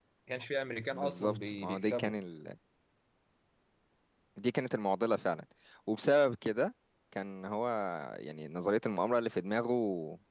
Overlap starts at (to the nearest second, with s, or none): 1 s